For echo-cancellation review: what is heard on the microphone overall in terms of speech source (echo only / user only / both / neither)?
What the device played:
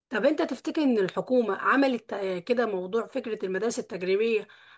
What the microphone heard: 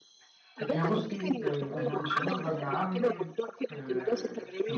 both